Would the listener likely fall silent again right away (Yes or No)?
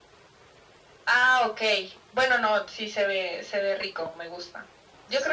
Yes